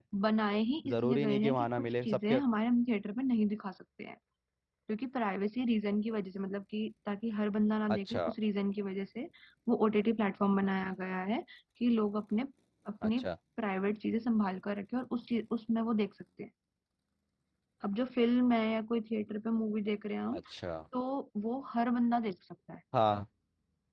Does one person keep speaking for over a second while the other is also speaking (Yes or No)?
Yes